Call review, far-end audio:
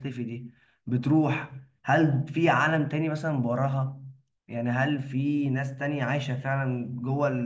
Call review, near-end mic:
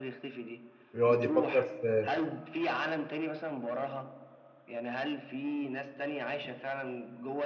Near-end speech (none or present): present